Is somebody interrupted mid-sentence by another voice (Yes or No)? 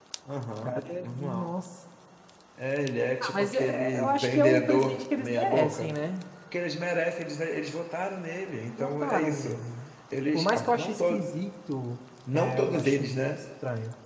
Yes